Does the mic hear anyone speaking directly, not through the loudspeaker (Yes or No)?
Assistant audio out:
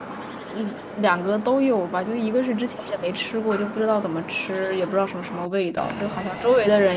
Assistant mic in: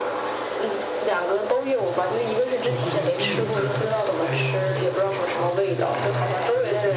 Yes